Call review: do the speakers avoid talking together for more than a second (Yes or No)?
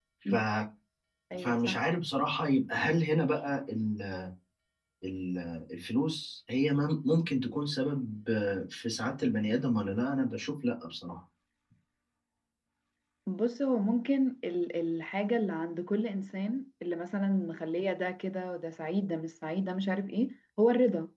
Yes